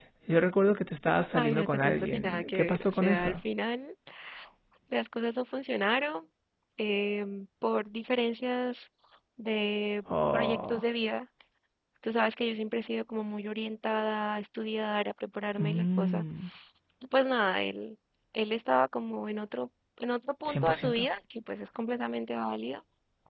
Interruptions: present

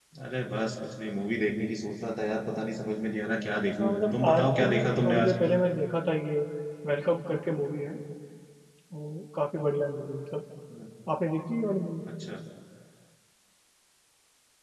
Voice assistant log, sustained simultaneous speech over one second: present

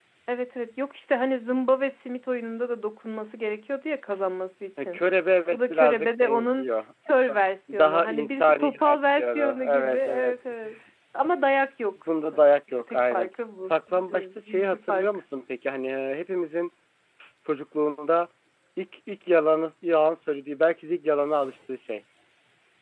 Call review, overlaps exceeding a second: present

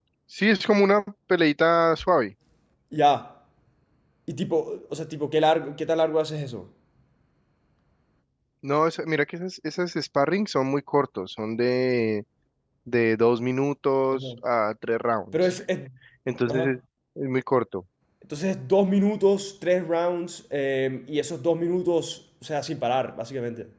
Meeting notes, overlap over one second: none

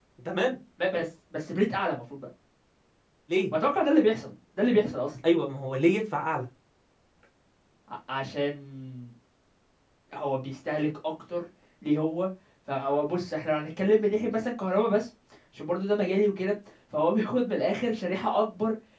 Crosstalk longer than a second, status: none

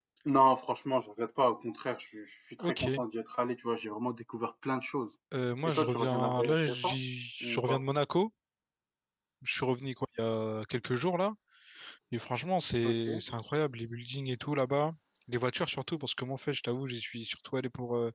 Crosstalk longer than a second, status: present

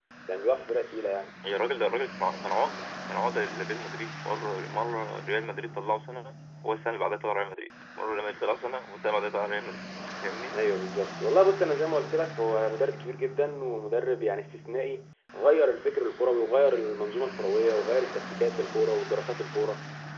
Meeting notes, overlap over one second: none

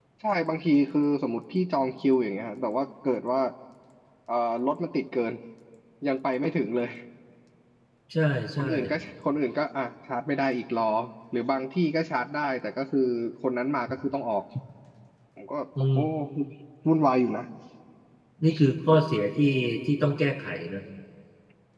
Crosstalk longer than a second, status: none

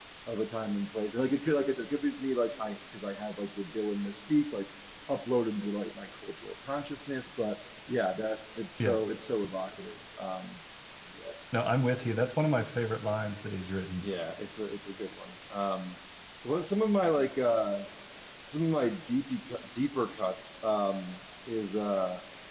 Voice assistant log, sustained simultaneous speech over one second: none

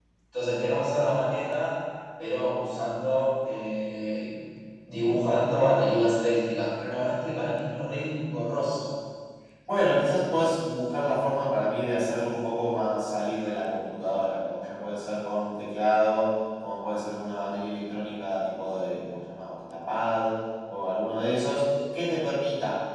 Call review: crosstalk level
none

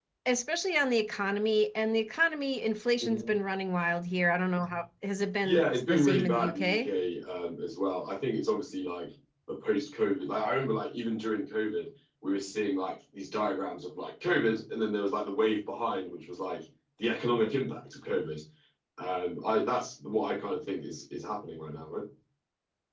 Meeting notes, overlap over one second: present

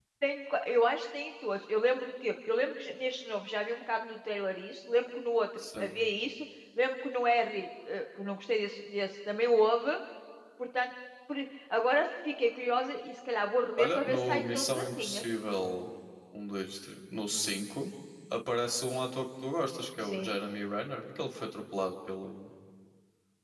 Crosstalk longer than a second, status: present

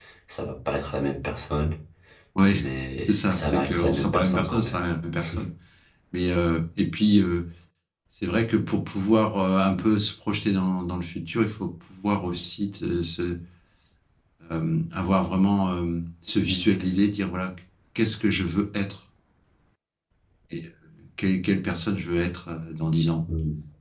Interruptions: present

